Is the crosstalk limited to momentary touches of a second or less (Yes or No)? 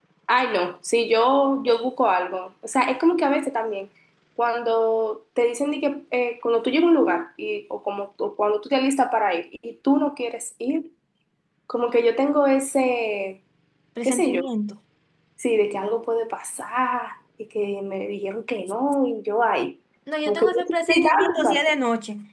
No